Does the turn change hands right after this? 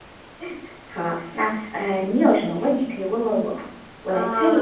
Yes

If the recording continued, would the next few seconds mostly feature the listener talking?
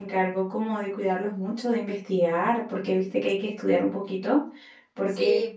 Yes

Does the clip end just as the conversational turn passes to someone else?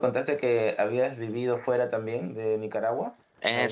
Yes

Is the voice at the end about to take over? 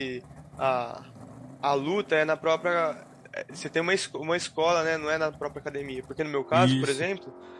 No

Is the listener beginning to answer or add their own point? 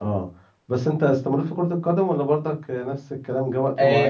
Yes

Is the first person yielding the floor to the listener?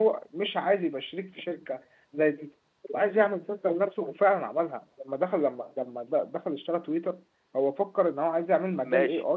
Yes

